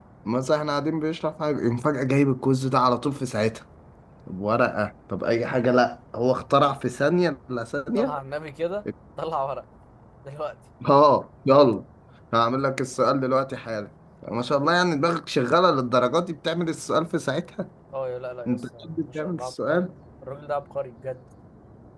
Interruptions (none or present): present